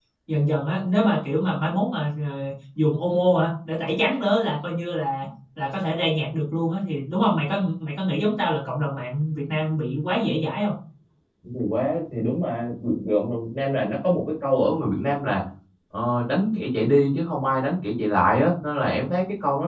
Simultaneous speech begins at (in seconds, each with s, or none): none